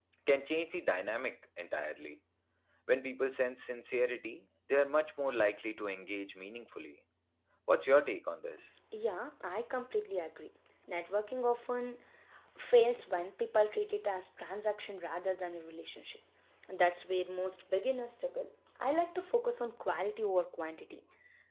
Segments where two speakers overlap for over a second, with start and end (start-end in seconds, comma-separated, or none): none